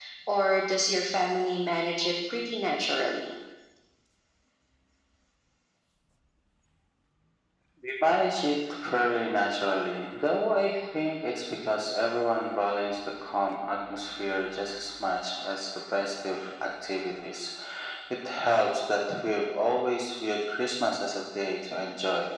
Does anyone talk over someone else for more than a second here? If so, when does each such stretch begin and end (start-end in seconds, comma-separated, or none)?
none